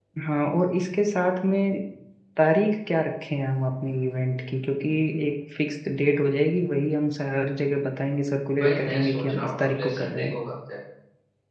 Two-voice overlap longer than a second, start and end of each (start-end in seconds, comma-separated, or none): 8.6-10.4